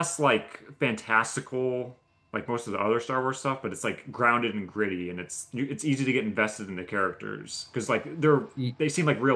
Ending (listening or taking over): listening